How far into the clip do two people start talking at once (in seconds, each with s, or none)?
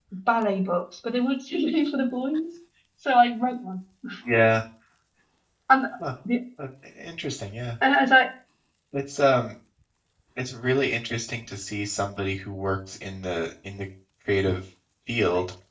none